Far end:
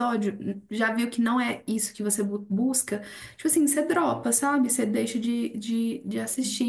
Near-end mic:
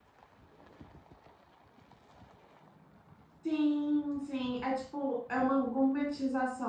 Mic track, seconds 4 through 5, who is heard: user only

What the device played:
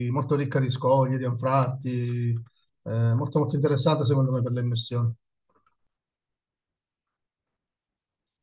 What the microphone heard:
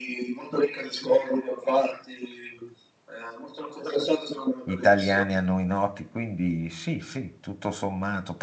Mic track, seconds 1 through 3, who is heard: echo only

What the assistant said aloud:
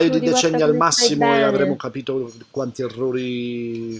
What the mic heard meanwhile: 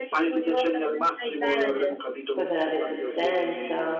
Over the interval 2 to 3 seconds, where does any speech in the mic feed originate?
both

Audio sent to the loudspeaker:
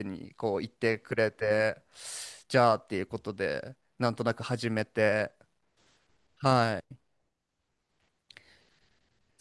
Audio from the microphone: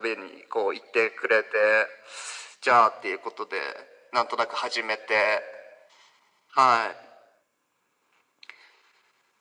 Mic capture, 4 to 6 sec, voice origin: echo only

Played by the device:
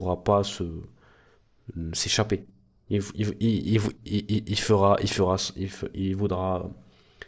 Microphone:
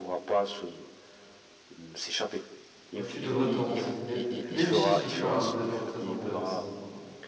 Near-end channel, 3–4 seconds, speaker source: both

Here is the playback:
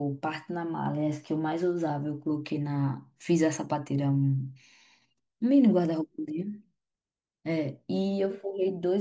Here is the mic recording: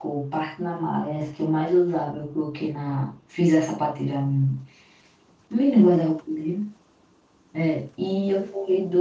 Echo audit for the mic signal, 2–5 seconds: echo only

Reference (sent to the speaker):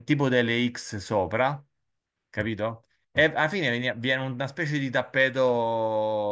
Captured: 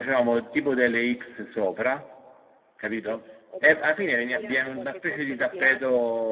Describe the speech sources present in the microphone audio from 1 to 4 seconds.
both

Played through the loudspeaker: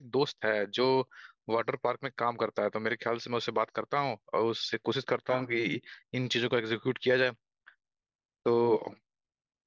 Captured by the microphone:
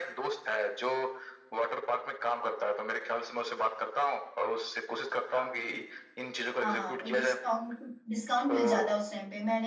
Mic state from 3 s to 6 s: echo only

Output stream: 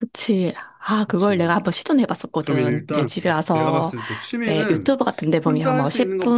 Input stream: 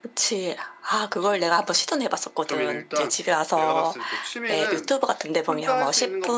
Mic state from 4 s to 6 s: echo only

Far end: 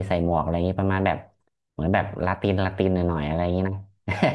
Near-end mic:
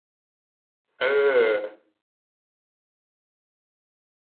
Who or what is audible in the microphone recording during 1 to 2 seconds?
user only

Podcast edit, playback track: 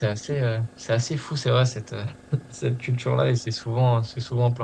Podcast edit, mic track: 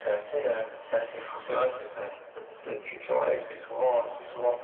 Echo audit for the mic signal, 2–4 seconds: echo only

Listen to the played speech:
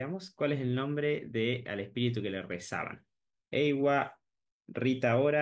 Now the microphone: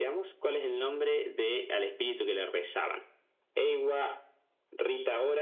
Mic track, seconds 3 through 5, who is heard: echo only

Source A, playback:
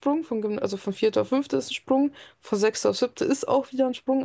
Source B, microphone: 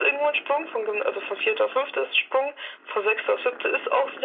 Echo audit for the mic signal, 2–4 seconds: echo only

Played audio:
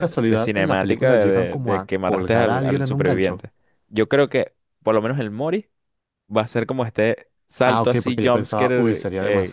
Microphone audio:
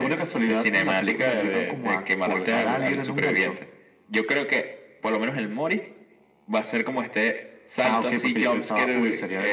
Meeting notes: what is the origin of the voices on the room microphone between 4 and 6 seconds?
echo only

